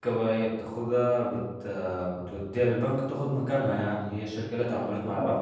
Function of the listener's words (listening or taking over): taking over